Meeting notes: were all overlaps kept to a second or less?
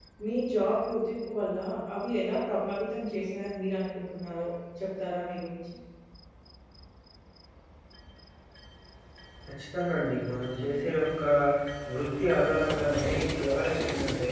Yes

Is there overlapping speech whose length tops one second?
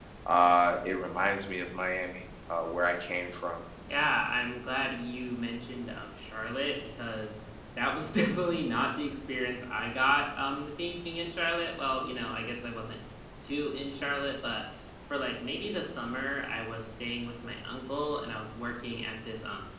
No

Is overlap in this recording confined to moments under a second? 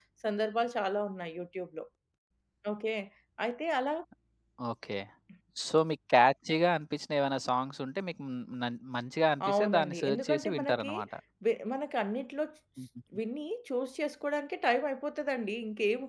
No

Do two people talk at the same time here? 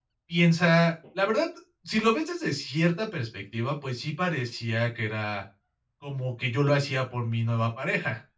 No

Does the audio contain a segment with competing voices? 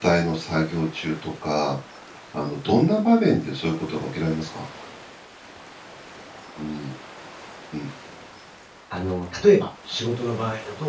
No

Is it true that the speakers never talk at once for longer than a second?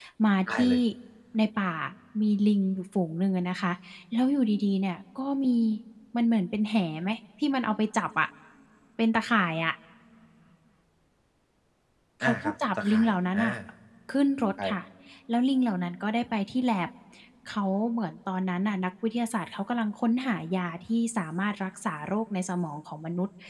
No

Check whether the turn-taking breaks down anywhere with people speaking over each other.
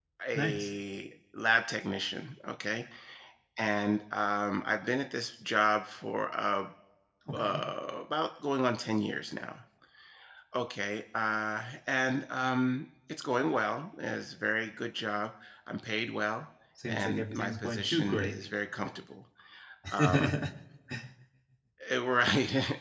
Yes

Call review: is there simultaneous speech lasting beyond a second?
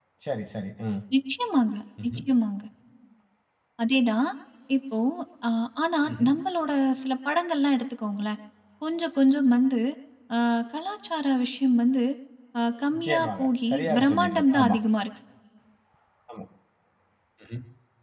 Yes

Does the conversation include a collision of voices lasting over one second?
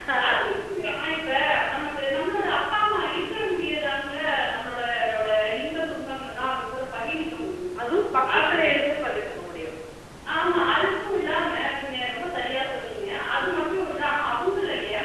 No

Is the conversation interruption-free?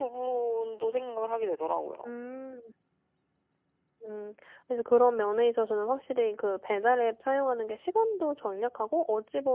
Yes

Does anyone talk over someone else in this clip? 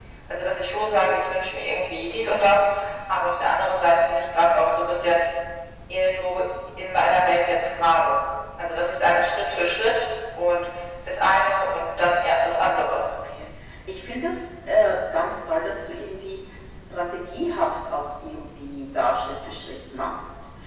No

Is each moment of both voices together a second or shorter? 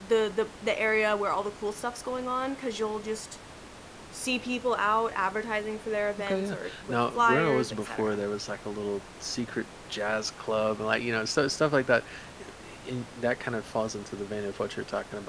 No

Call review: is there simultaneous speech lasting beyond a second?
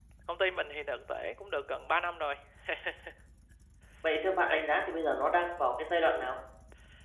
No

